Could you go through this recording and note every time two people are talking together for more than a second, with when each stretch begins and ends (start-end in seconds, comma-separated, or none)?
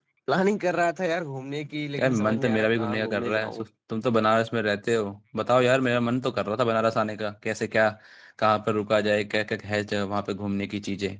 2.0-3.6